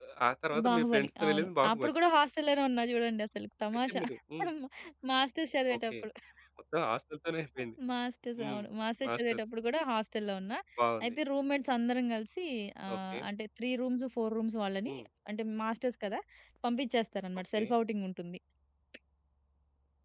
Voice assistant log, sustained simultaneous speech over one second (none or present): present